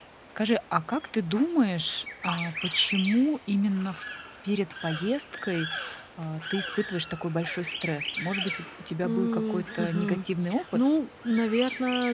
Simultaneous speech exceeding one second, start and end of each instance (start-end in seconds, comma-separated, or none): 9.0-10.2